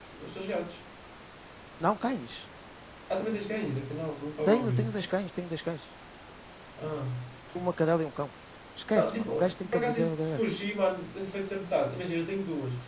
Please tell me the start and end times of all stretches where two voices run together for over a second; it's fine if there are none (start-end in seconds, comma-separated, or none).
8.9-10.4